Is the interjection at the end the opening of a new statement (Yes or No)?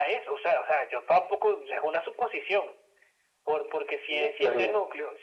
No